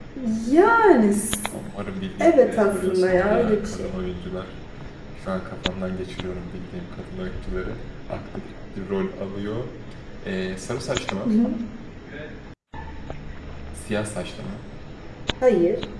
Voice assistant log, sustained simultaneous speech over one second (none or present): present